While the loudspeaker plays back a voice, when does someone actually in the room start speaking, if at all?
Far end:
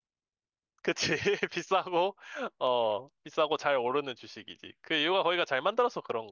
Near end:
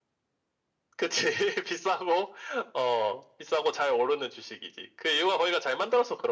none

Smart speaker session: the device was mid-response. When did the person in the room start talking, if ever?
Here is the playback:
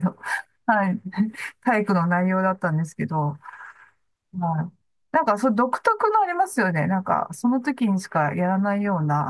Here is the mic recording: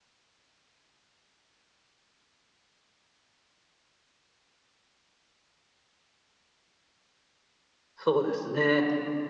8.0 s

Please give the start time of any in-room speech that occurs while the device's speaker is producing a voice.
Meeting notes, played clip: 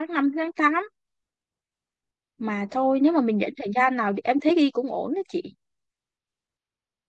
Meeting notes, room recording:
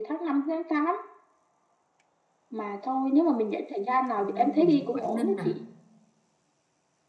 4.2 s

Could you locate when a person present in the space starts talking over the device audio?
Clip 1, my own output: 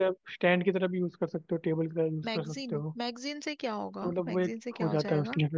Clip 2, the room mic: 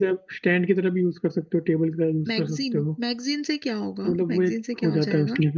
none

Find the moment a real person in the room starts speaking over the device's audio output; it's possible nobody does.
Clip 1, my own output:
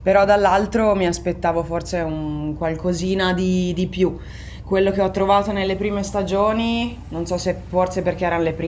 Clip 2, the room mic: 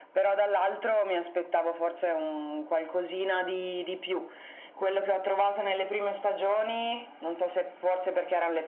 none

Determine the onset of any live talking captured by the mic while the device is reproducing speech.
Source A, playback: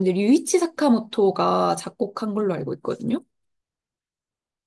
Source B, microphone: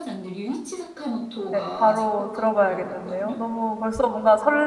1.5 s

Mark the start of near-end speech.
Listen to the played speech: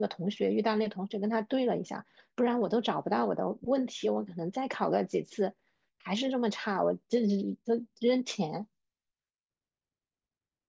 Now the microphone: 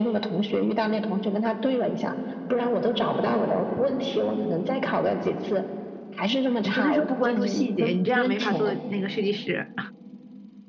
6.6 s

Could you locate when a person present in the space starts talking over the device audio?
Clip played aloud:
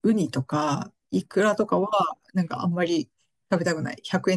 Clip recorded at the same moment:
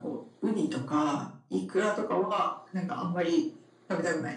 none

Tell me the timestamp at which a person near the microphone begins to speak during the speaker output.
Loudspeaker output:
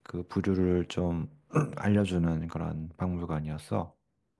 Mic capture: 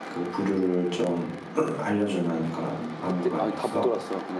3.0 s

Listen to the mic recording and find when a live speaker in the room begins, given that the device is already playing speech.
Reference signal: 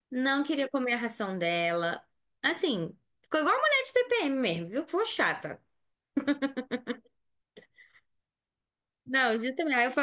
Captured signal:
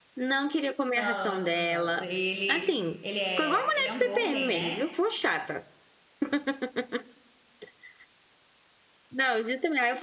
0.9 s

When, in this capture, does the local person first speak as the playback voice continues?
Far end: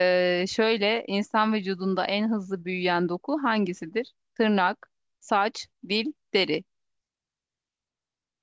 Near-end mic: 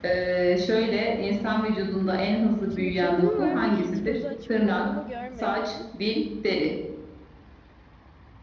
1.2 s

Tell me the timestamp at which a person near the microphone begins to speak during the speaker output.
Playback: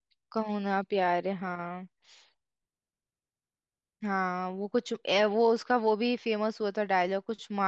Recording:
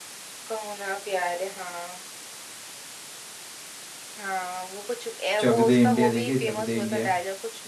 5.4 s

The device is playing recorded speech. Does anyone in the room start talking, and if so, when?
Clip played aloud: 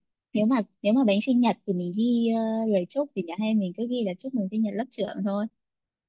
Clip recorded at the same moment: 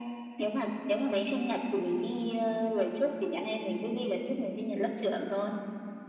none

